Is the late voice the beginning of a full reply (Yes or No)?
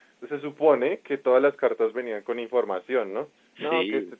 No